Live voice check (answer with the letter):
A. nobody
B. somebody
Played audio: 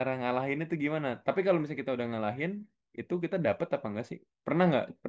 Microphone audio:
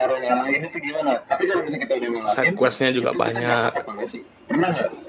B